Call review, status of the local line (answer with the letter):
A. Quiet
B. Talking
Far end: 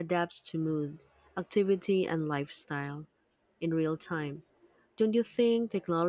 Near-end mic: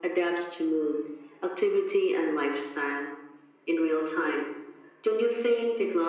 A